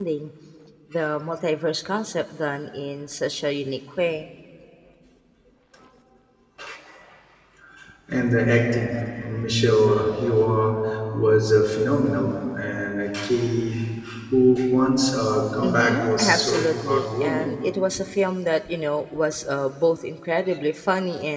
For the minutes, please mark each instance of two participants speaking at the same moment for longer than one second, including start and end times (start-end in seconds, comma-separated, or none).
15.6-17.5